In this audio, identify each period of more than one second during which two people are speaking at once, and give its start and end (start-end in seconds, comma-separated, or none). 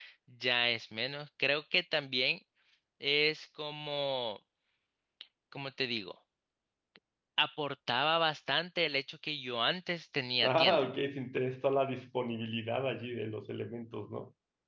none